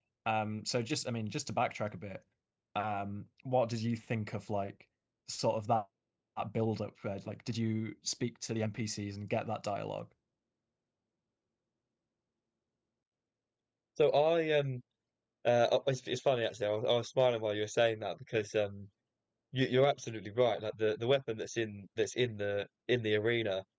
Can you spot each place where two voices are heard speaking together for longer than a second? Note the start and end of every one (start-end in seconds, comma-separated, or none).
none